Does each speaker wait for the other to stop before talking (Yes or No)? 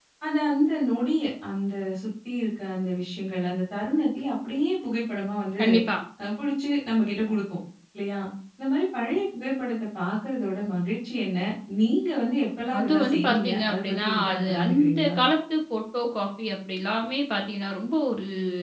No